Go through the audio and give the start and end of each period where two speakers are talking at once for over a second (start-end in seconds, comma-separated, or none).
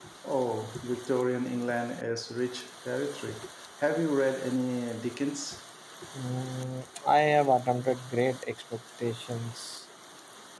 none